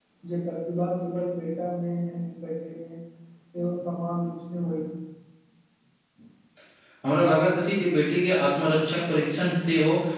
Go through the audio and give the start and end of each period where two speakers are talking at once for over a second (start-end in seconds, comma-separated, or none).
none